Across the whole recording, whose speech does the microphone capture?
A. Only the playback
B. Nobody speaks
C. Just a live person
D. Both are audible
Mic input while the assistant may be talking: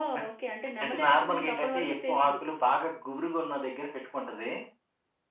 A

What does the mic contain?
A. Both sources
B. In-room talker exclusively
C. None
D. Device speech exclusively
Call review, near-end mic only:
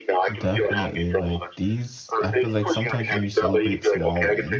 A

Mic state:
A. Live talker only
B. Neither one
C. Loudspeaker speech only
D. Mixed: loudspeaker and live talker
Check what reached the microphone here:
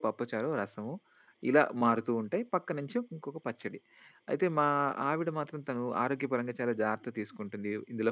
A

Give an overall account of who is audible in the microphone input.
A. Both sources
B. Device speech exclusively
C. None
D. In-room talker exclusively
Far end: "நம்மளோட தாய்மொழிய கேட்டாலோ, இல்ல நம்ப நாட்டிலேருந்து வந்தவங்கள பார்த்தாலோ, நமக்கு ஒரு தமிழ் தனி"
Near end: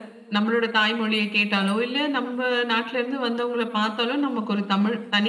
B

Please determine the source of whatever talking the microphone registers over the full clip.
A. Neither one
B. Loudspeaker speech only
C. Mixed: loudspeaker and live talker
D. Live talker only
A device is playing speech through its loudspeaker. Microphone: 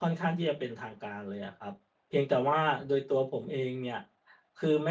D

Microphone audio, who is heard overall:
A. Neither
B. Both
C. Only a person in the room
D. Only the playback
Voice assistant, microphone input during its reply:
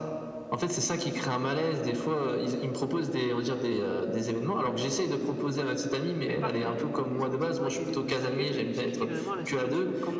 B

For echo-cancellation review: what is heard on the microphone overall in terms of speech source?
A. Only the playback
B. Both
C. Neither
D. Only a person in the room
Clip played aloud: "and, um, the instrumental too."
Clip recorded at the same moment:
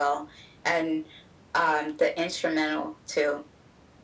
A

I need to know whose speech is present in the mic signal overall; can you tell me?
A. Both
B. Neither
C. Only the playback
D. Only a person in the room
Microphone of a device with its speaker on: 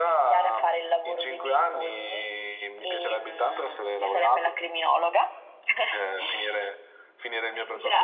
C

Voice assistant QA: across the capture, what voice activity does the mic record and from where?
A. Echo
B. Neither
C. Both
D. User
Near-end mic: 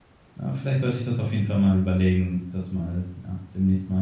D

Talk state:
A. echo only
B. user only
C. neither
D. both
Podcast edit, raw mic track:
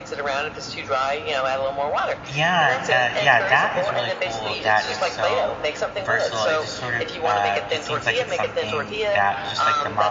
D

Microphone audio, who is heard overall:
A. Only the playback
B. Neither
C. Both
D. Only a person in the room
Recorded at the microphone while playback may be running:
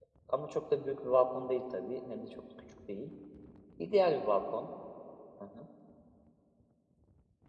D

